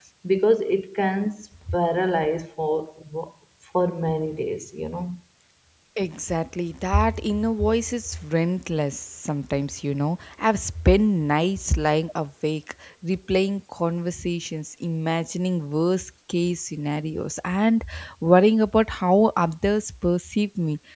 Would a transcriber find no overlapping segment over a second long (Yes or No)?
Yes